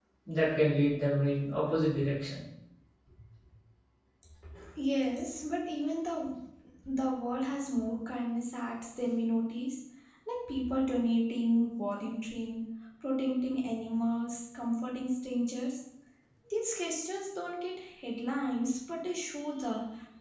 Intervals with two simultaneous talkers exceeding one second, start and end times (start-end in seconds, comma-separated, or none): none